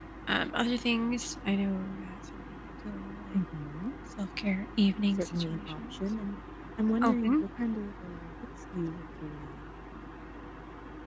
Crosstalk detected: Yes, from 4.9 s

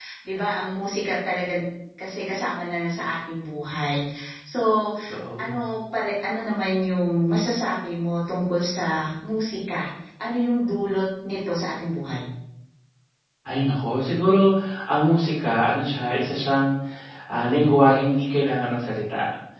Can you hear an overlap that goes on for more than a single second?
No

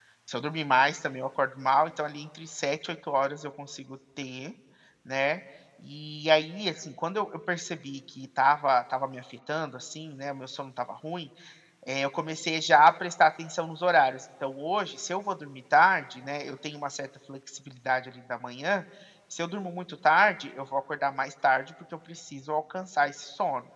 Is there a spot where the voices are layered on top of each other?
No

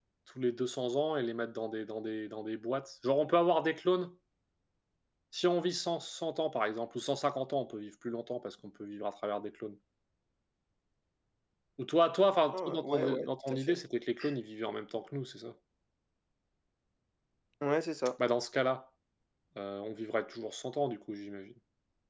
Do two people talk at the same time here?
Yes, from 12.5 s

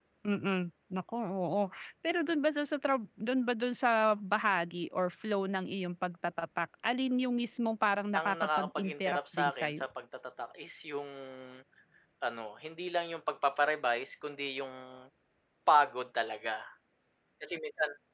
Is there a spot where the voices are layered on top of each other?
Yes, from 8.2 s

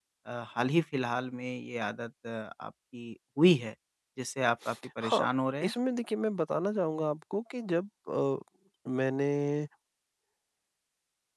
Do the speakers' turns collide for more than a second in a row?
No

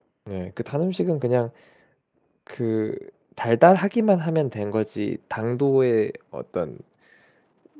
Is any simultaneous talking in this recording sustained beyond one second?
No

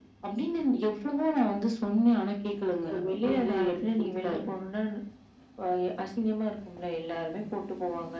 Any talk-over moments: Yes, from 2.9 s

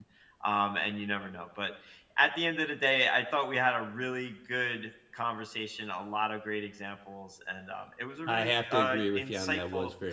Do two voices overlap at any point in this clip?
Yes, from 8.3 s

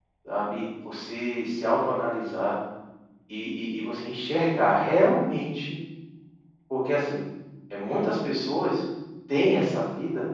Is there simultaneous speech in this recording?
No

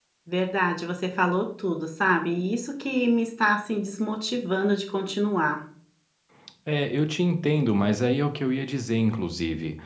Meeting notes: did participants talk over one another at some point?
No

